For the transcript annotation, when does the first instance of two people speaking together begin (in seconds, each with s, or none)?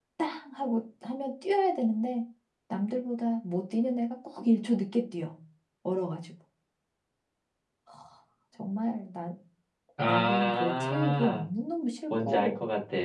10.1 s